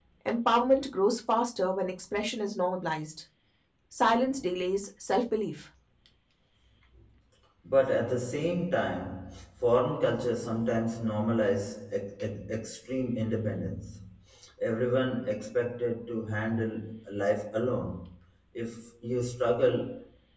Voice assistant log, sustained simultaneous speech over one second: none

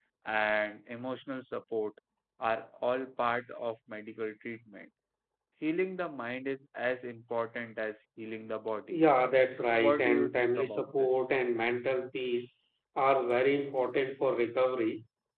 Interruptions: present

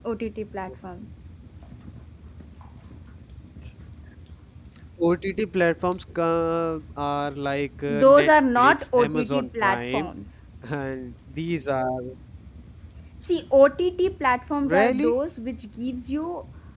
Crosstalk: present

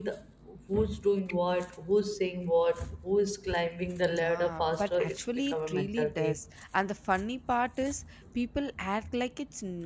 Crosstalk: present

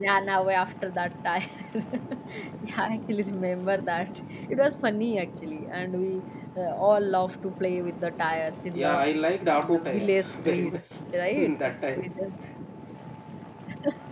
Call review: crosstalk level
present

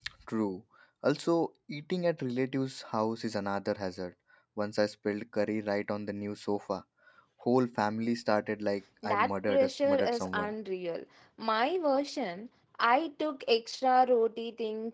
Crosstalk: present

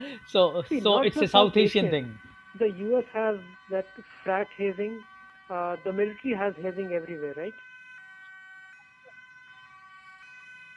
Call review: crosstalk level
present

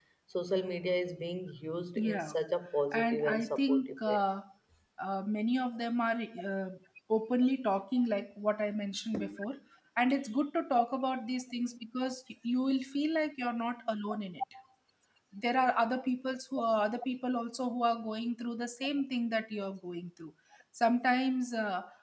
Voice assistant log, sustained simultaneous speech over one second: present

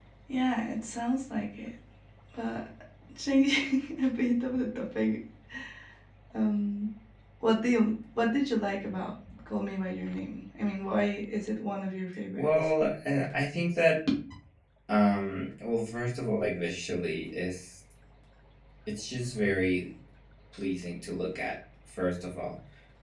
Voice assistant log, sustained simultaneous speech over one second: none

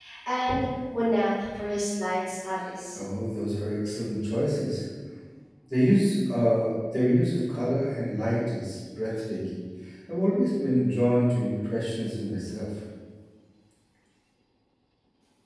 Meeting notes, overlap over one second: none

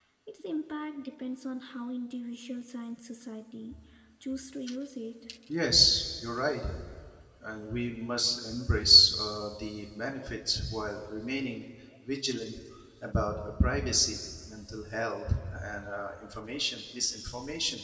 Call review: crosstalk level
none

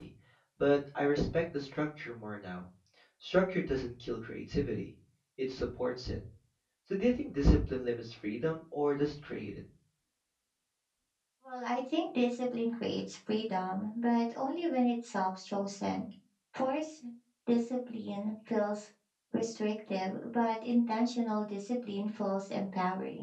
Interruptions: none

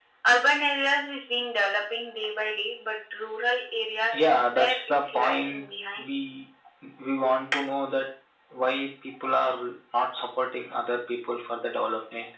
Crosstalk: present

